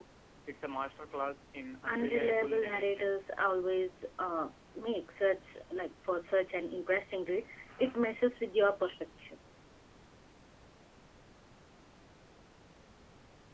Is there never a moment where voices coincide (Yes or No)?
No